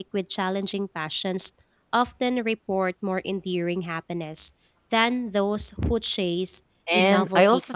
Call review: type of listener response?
taking over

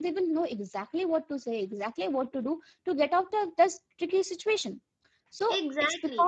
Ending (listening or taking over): listening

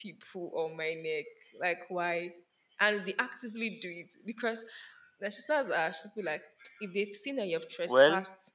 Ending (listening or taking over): listening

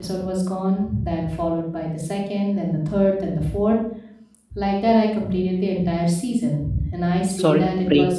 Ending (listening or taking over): taking over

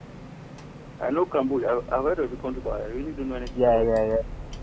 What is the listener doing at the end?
taking over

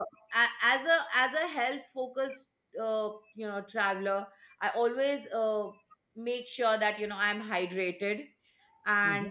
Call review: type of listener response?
taking over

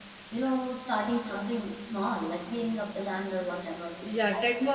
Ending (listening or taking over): taking over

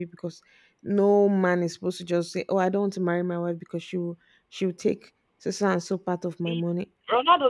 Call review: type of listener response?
taking over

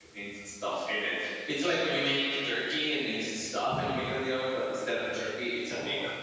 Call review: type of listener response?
taking over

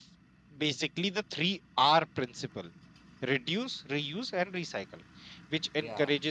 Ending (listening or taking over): listening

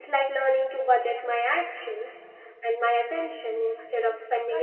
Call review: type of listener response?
taking over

